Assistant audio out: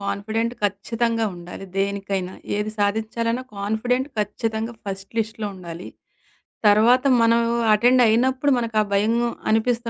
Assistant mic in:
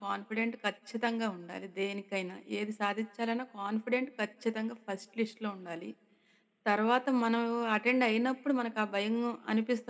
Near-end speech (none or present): none